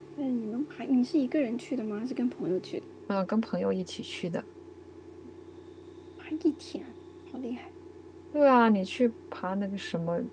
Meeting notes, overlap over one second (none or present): none